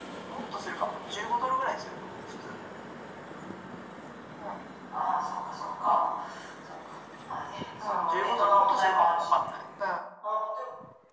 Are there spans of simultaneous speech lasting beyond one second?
Yes, from 7.8 s

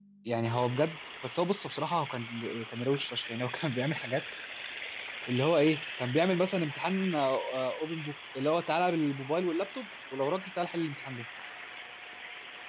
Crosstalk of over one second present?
No

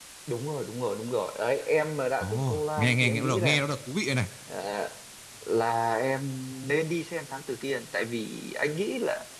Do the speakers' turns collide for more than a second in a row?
Yes, from 2.2 s

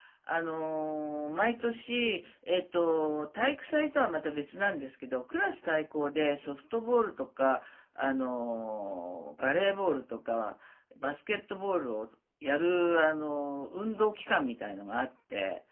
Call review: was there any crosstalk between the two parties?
No

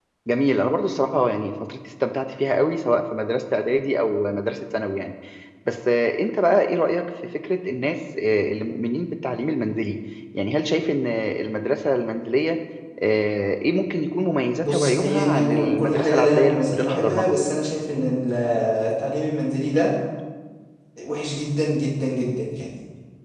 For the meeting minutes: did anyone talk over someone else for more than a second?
Yes, from 14.6 s

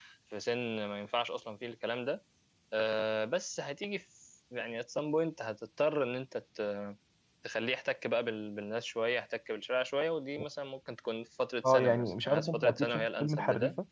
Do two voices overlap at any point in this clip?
Yes, from 11.6 s

